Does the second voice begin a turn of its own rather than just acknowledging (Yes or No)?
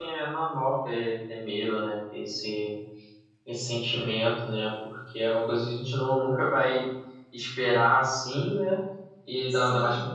No